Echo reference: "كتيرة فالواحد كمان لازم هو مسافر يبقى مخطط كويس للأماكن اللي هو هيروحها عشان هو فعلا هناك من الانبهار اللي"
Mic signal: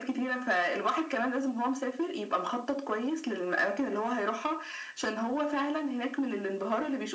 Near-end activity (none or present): none